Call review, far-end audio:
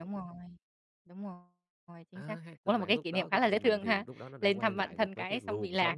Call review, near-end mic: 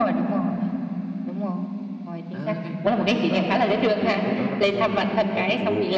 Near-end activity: none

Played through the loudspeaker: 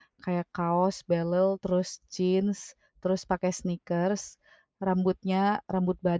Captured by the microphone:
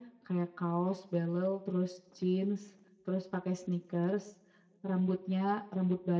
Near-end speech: none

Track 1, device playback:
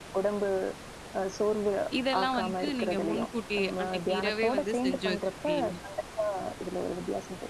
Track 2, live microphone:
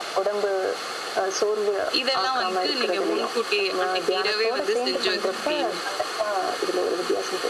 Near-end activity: present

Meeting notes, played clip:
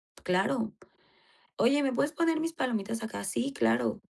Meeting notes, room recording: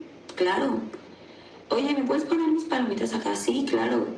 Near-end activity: none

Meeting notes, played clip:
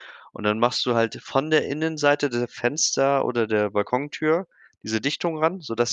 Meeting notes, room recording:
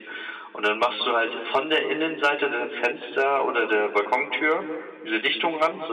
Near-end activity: none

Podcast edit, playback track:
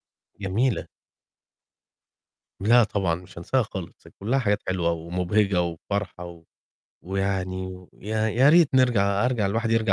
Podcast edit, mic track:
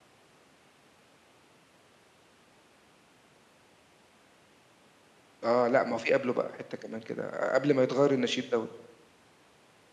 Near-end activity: present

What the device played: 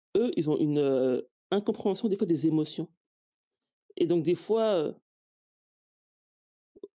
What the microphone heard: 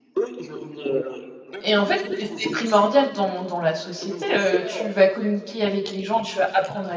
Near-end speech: present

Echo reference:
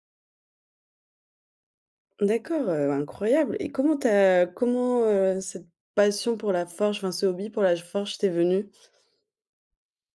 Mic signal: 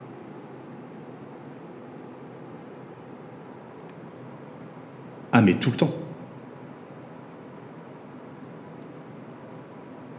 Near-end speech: present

